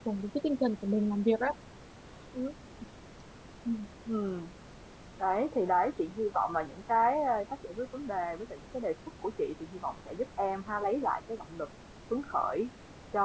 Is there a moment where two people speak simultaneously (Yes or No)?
No